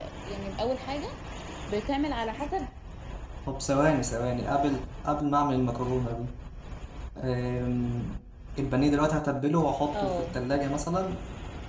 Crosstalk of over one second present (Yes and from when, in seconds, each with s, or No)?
No